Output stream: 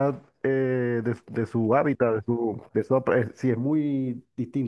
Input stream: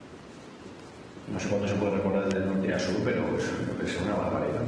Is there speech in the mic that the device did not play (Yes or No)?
Yes